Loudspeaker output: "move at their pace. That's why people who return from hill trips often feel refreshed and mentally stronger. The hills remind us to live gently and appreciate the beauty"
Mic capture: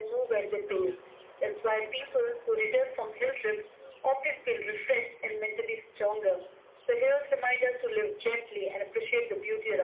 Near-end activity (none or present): none